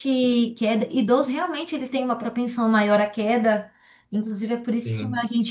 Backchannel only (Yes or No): Yes